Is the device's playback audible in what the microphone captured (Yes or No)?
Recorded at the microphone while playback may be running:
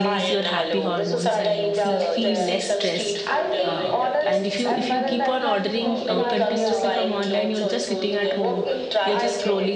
Yes